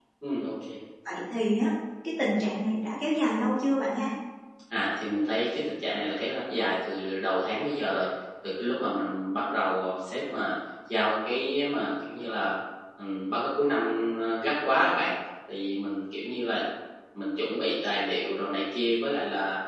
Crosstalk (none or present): none